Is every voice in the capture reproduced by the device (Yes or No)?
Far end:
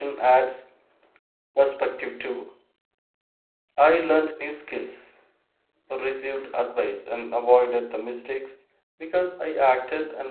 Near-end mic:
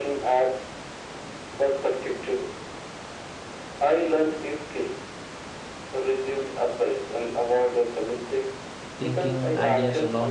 No